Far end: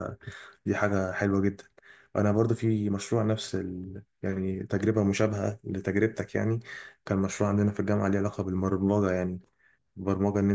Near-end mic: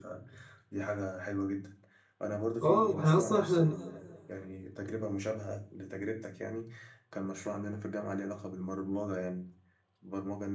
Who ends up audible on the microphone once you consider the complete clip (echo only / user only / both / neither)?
both